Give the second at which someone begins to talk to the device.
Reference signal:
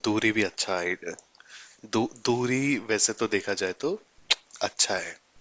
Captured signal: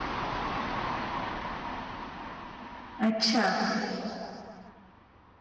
3.1 s

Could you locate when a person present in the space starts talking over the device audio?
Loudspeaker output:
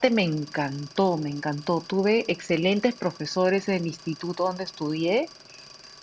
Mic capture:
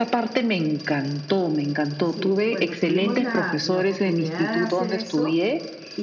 2.0 s

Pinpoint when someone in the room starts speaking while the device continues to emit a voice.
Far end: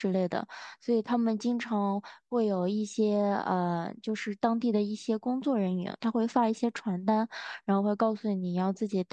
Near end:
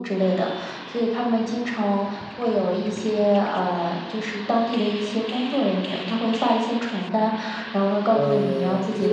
8.1 s

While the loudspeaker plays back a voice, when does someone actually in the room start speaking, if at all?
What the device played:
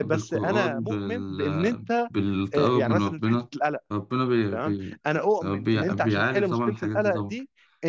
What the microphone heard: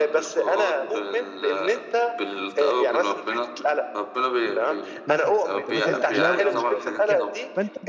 5.1 s

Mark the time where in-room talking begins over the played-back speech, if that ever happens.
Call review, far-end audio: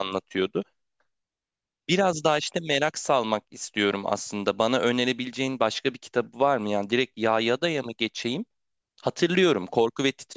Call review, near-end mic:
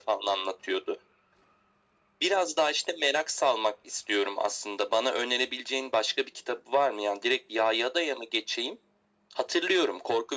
none

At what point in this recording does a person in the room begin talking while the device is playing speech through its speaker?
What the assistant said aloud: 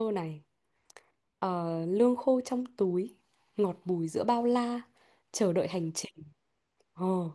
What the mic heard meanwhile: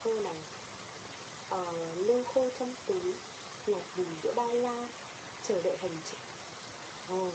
none

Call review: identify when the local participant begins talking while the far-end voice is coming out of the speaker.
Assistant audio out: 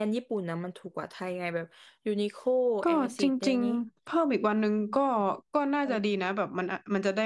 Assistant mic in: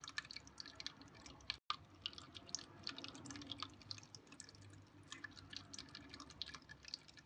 none

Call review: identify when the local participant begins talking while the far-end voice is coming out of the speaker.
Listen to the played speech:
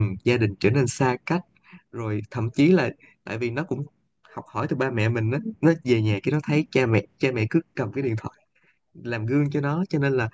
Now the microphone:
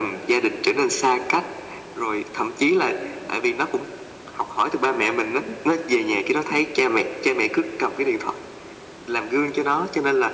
none

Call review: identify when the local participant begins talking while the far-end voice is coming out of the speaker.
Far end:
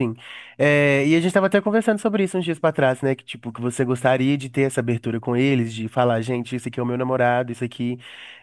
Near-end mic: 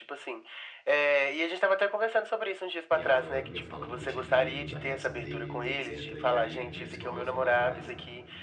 2.9 s

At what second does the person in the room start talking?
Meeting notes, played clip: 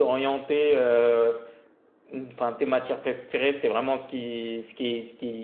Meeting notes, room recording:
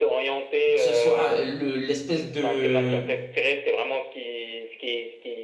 0.7 s

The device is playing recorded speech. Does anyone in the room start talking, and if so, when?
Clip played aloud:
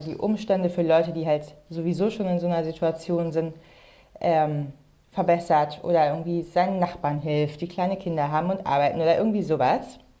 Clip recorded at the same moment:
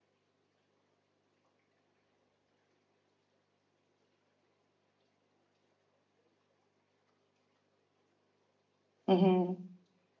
9.1 s

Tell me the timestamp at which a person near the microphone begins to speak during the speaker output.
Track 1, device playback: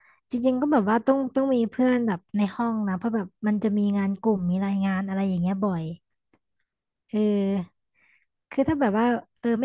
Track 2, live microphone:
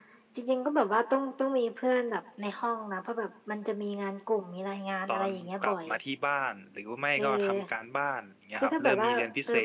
5.0 s

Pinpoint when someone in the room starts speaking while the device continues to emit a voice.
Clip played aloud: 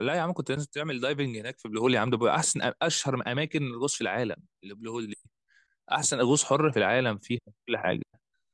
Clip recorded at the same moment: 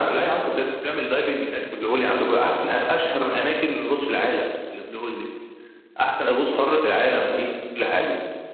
none

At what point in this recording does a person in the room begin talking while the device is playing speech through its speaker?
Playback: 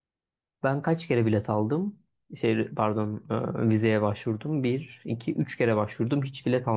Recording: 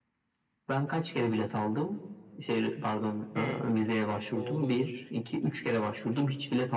3.4 s

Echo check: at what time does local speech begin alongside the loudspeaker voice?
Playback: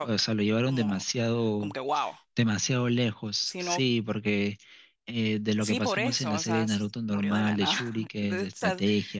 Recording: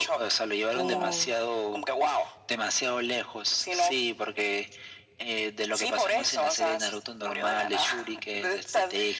0.7 s

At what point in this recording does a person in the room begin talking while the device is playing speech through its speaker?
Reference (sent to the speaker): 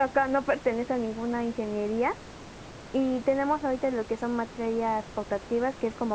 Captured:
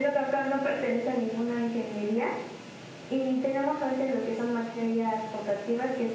none

